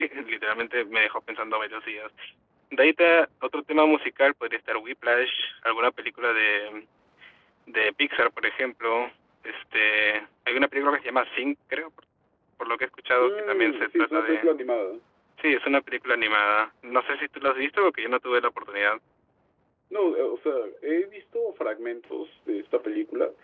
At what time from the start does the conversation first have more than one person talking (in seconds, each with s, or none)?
13.2 s